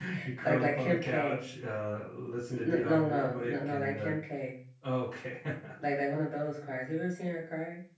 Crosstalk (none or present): present